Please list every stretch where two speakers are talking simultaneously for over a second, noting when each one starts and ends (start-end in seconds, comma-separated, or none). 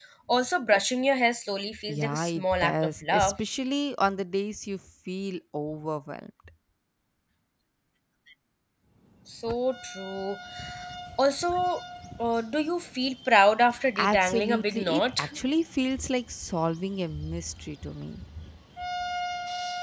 1.9-3.4, 14.0-15.3